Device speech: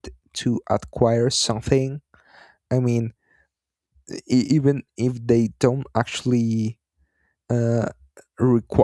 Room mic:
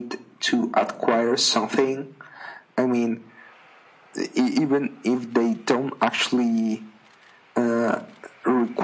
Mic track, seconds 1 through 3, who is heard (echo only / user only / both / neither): echo only